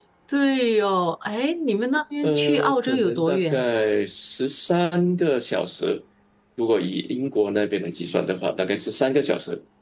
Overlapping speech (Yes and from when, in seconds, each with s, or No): Yes, from 2.2 s